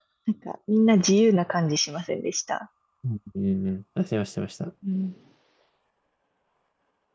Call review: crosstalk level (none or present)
none